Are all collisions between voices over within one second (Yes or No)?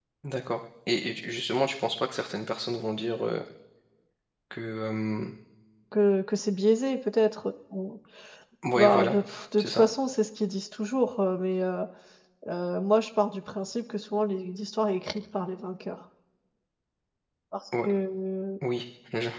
Yes